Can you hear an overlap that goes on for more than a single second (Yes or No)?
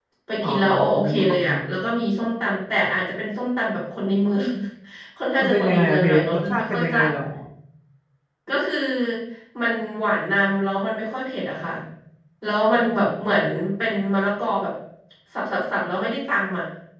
Yes